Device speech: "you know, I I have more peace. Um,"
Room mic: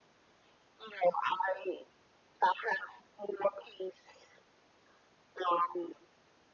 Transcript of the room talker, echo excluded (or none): none